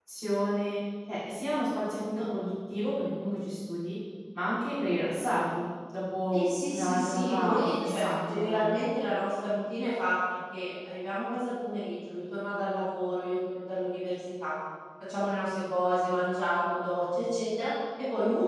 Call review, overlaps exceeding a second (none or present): present